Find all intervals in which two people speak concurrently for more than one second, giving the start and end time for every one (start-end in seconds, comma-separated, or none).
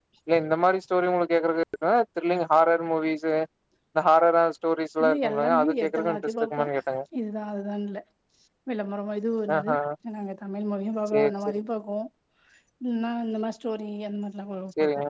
5.0-6.6